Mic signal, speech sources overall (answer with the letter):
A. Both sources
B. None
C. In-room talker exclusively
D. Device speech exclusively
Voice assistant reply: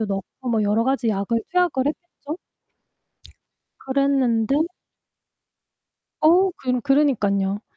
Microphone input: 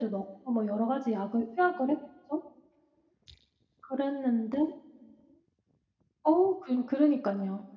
D